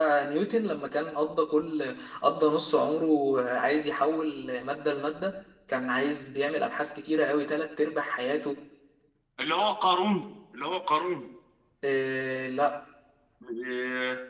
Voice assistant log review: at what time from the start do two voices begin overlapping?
none

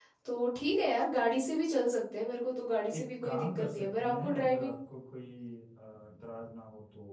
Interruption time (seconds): 2.9 s

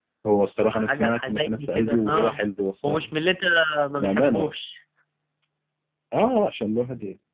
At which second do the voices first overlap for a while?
0.7 s

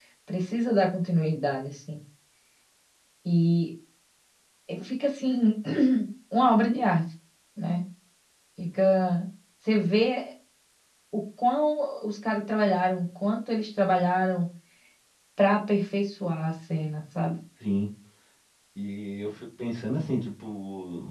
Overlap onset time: none

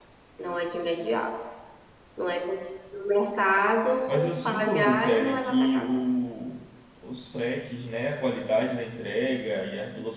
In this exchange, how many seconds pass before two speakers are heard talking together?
4.1 s

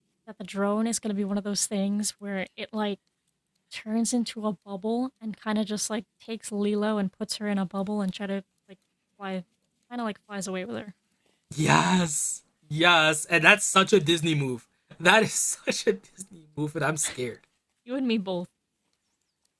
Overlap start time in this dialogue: none

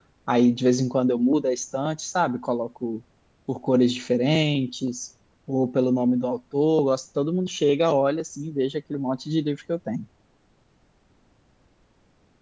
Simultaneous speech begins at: none

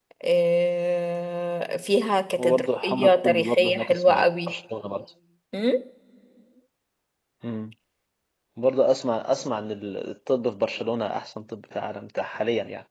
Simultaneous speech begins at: 2.4 s

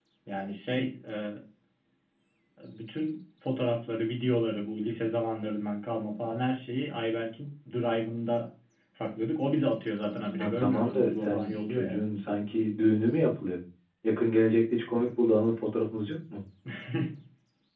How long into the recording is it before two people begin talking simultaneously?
10.4 s

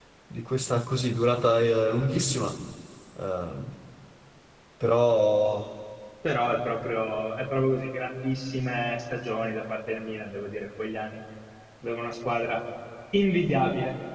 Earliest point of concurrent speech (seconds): none

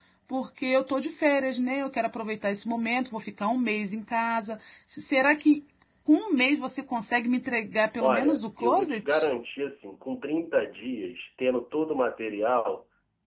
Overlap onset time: 8.0 s

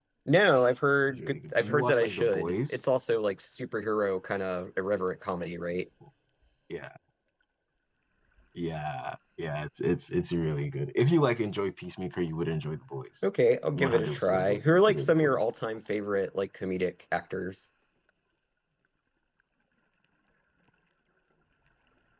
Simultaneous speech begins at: 1.1 s

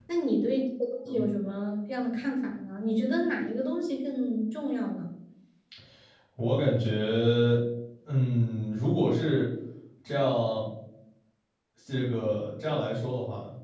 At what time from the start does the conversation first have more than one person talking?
none

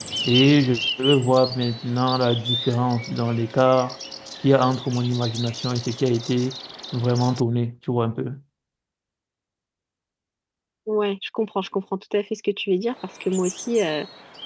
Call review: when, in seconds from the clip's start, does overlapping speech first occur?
none

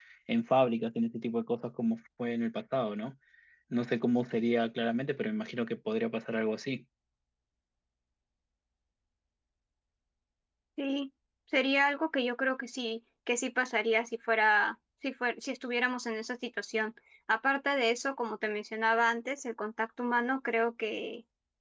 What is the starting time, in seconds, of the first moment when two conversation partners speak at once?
none

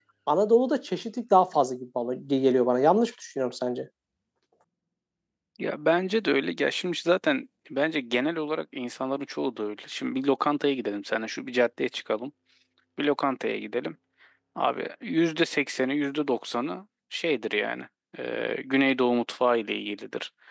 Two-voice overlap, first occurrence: none

